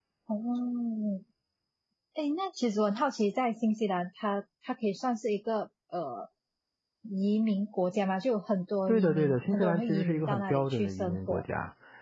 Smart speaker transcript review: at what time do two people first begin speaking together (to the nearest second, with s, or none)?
9 s